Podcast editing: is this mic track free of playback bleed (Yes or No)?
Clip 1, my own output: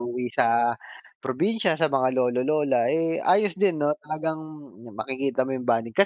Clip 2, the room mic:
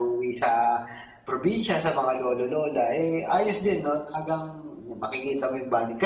No